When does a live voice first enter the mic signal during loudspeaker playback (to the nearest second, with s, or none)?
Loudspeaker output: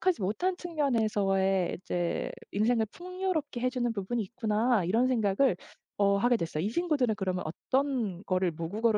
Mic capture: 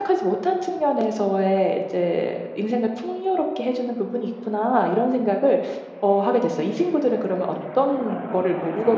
none